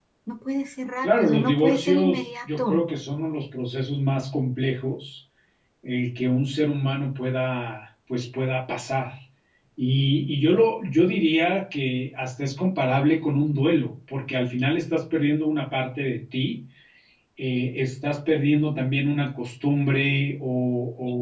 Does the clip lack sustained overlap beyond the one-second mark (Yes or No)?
No